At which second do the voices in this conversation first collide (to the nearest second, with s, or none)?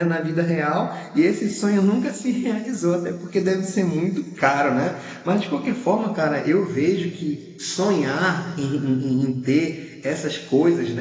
none